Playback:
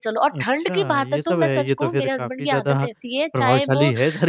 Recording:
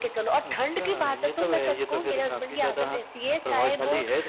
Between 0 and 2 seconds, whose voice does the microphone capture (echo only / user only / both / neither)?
echo only